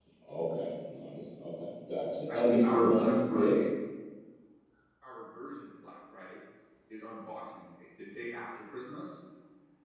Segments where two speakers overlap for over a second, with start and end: 2.3-3.6

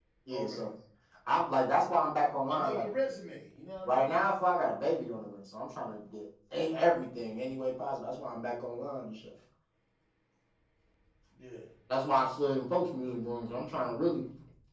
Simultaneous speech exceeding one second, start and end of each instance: none

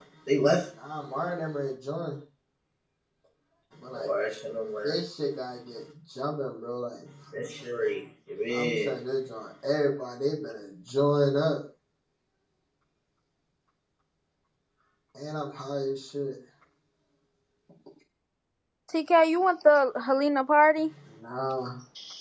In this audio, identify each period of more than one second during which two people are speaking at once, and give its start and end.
none

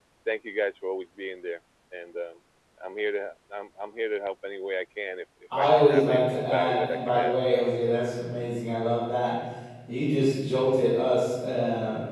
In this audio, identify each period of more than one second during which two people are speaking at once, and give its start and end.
5.6-7.3

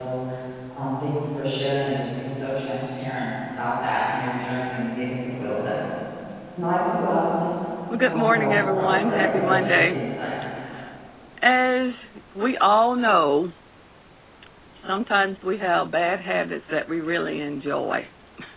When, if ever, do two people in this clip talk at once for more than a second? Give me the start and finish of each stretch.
8.0-10.0

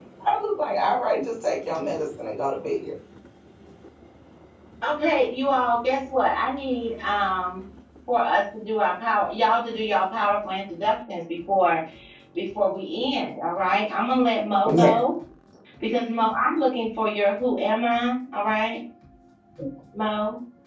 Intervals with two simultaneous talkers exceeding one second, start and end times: none

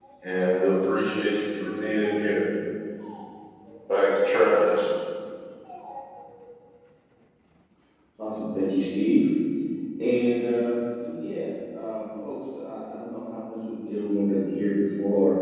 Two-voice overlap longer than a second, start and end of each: none

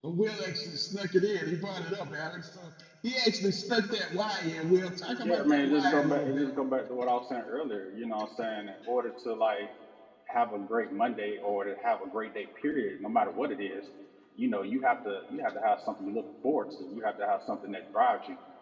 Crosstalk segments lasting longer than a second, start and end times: 5.2-6.5

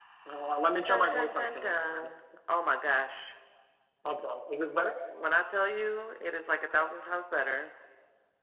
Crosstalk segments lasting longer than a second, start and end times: 0.9-2.1

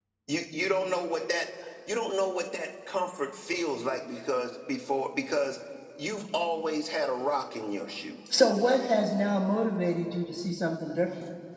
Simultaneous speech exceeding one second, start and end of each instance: none

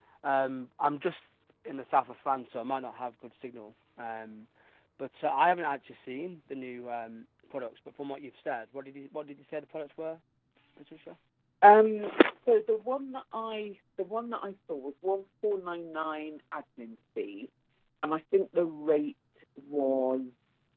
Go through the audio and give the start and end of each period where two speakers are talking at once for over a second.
none

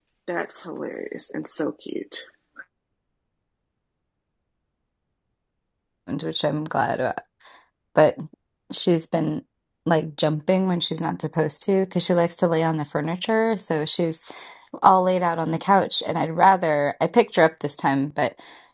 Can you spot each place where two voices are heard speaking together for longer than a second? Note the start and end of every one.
none

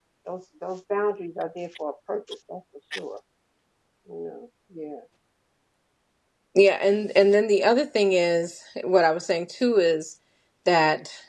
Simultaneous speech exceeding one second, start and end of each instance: none

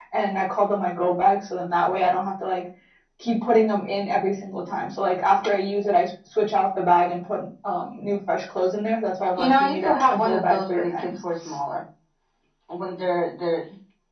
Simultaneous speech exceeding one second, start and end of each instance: 9.4-11.2

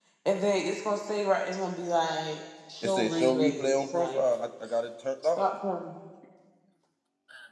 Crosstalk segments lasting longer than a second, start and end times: 2.8-4.2

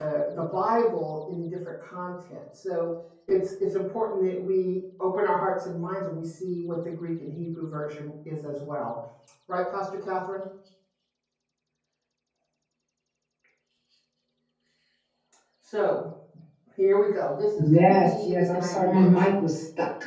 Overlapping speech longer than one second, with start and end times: 17.6-19.4

